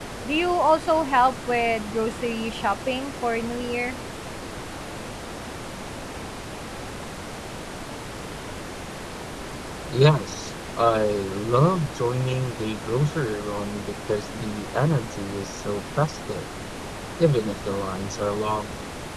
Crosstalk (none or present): none